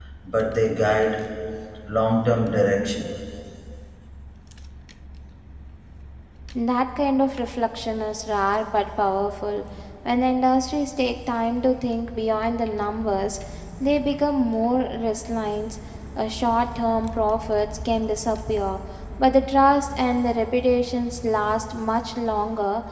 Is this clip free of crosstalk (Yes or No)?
Yes